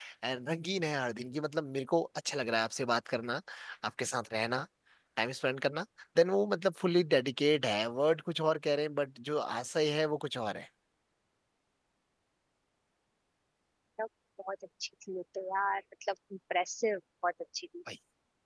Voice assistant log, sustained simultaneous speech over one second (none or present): none